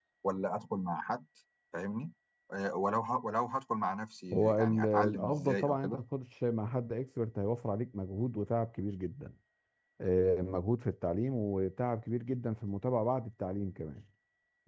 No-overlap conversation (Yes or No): No